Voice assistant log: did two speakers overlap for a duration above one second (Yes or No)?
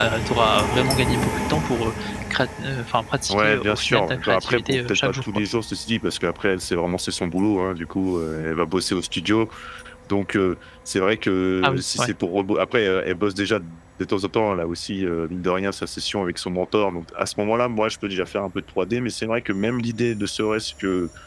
Yes